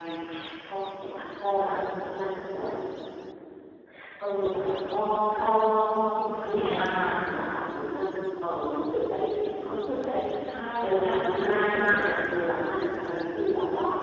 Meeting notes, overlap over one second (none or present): present